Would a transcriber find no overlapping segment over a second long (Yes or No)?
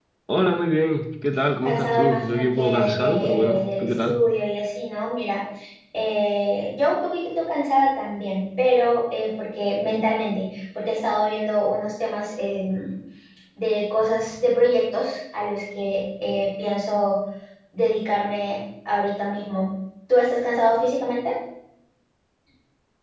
No